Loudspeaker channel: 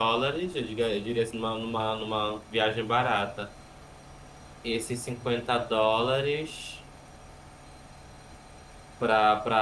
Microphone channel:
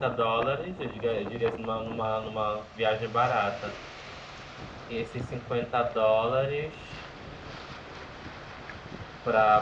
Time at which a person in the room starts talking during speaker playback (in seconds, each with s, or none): none